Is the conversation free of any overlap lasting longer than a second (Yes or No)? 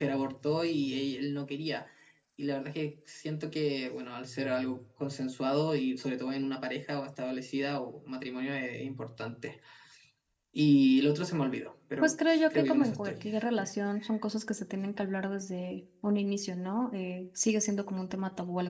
No